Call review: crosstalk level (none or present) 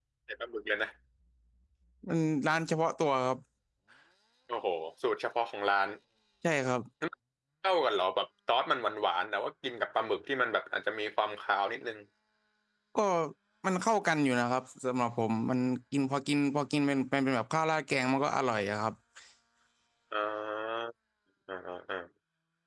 none